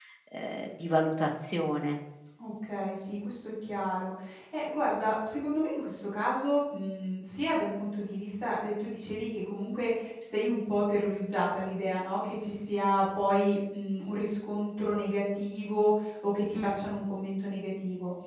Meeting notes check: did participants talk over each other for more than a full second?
No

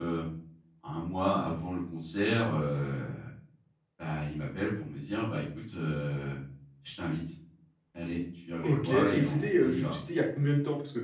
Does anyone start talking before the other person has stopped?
Yes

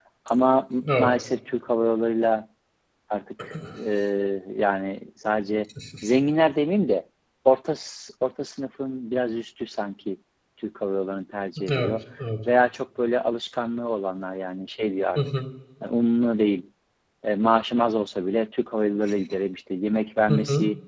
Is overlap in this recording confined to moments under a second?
Yes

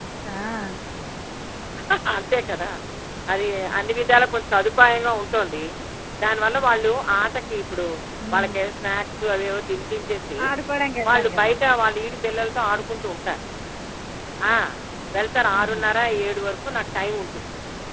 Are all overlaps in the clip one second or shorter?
Yes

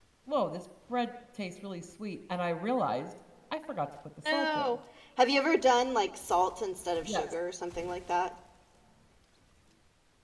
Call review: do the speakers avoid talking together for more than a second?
Yes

